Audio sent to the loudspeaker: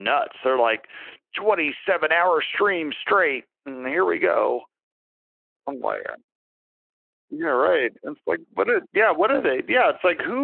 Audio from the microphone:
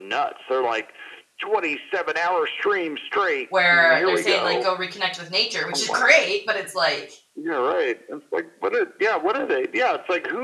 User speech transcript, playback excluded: where they're saying, like, "Go reconnect with nature," which is great, but it's like,

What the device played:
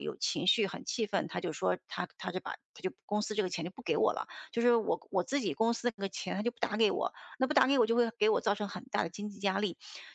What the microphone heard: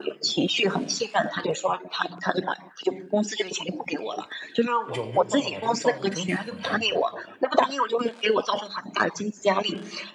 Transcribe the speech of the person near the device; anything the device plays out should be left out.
有没有办法把这个账户争取回来呢

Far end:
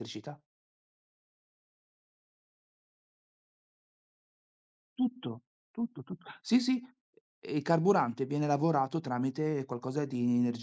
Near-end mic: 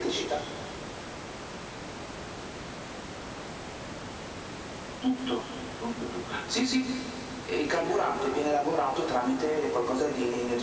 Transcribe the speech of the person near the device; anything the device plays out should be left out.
none

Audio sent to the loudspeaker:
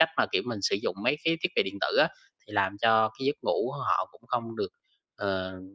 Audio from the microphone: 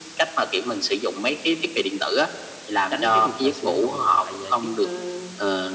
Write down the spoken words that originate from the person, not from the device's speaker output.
Tránh cái việc mà sử dụng điện thoại, ờ, trước, ơ,

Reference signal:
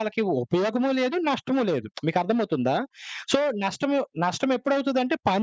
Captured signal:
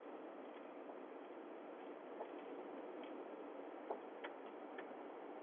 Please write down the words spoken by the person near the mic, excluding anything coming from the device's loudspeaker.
none

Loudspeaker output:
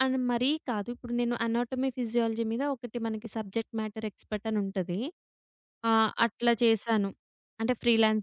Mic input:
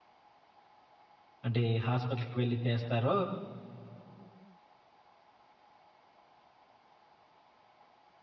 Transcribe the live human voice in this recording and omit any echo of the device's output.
అంటే హాస్పిటల్‌కి వెళ్లి చేస్తారో,

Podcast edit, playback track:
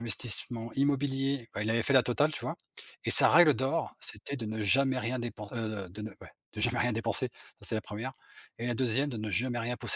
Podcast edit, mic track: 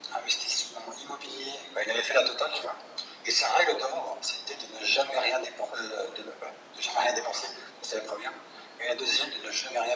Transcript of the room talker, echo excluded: none

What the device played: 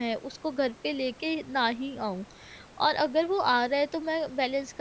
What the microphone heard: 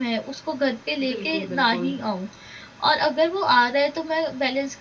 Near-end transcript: बिल्कुल, बिल्कुल।

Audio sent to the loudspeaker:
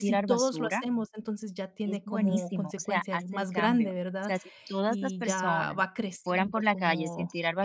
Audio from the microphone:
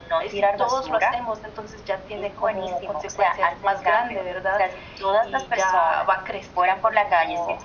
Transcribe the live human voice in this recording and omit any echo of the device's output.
none

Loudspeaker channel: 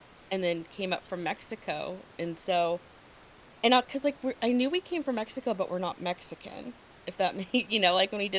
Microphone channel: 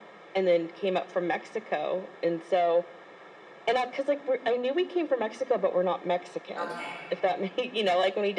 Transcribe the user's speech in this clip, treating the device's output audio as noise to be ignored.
Okay,

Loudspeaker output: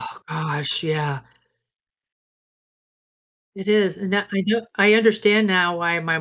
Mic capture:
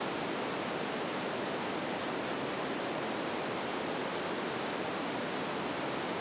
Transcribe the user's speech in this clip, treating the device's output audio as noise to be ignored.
none

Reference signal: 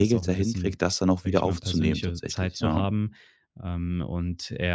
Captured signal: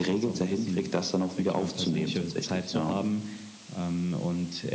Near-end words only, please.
none

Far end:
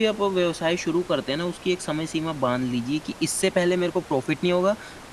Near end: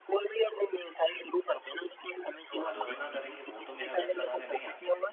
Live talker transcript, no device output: जो आलोचना करेंगे वो तो मेरा घर चलाने नहीं आते।

